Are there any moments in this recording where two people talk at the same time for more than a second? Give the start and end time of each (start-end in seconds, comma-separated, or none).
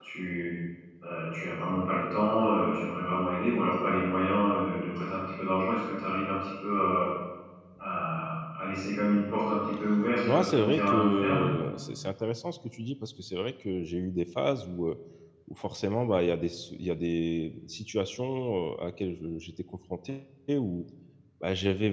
10.2-11.5